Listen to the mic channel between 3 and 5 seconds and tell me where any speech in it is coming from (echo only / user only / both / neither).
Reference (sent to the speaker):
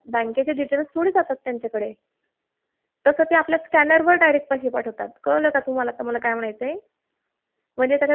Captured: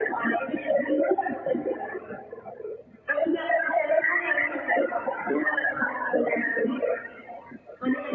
echo only